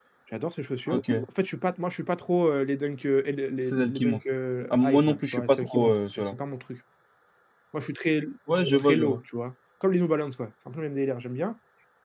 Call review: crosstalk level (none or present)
present